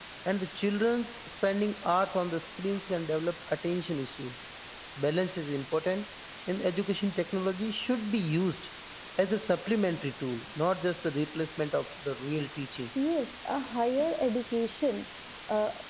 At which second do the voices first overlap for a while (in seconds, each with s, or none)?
none